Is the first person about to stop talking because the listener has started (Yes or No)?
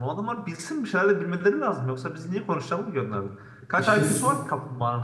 No